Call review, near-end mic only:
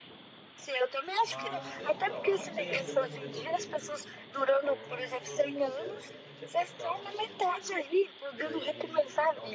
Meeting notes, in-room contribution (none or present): present